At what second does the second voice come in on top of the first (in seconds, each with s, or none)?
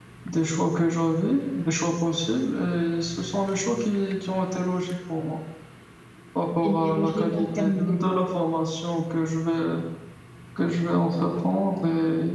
6.6 s